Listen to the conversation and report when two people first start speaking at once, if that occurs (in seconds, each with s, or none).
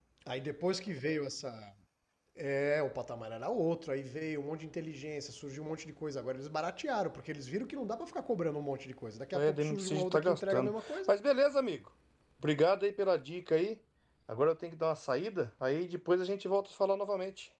9.3 s